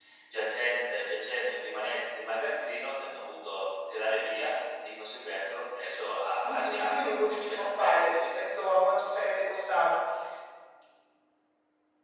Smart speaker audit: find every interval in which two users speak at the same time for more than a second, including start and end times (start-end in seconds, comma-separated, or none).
6.4-8.3